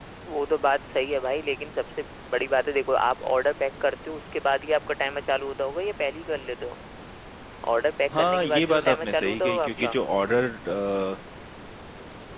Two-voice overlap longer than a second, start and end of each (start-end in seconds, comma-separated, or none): 8.2-10.0